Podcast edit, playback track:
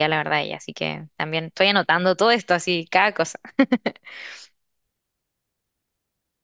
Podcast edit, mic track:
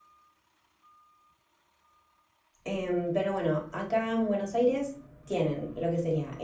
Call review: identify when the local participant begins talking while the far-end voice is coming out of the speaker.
2.6 s

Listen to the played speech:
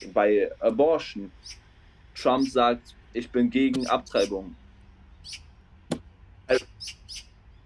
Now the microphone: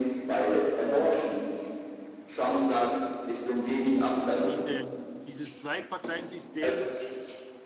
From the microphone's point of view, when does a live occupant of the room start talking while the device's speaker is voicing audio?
4.4 s

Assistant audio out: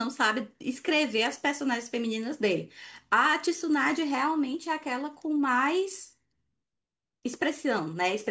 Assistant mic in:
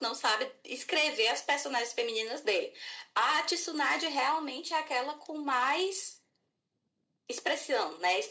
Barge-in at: none

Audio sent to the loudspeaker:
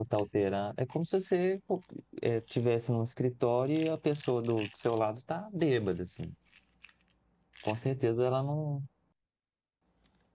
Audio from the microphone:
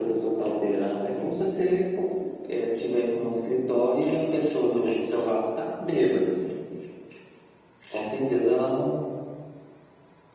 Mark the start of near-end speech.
none

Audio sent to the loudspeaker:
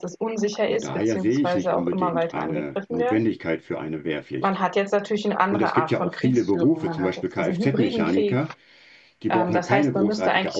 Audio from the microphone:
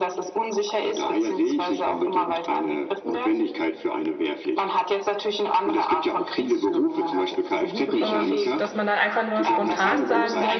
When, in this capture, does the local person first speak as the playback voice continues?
8.0 s

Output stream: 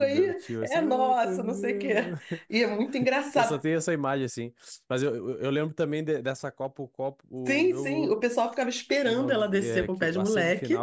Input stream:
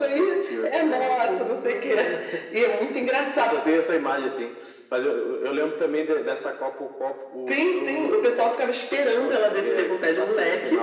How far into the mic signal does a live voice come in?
none

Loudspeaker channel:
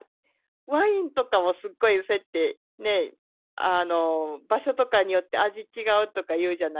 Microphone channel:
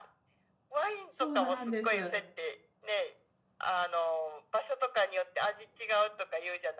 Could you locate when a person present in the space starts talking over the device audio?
1.1 s

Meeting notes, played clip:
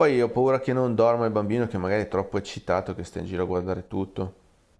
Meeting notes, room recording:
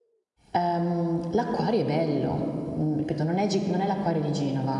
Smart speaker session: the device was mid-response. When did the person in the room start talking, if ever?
0.5 s

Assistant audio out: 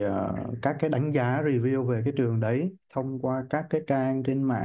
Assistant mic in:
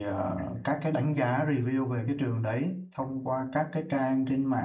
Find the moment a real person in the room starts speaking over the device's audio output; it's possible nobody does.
none

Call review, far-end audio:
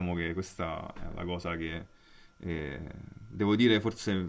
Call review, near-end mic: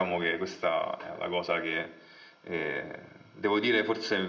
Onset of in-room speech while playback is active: none

